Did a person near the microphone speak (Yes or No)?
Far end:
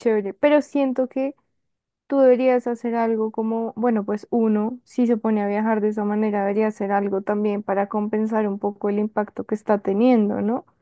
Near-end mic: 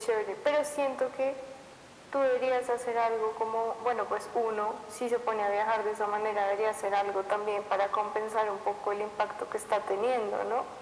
No